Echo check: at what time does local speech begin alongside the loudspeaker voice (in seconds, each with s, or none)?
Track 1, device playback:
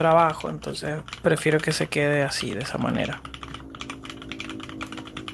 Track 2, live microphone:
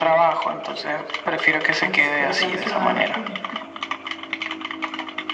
1.8 s